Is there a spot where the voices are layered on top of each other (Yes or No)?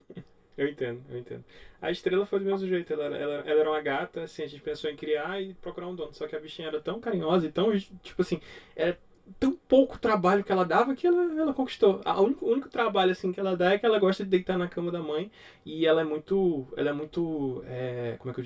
No